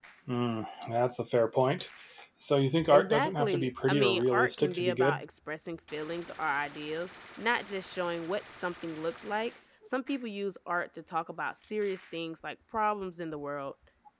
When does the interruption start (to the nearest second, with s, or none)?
3 s